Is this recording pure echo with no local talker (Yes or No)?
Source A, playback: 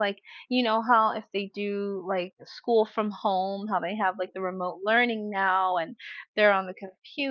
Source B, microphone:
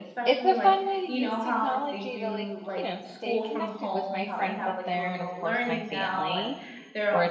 No